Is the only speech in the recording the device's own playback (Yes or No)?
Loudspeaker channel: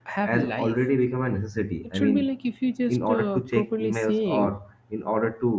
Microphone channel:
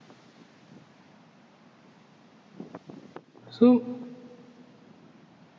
No